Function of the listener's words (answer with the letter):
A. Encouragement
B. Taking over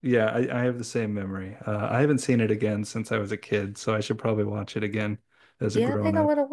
B